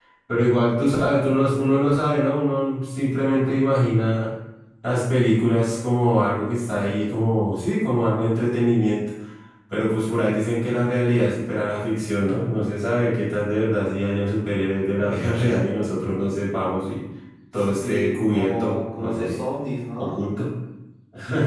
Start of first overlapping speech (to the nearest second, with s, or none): 18 s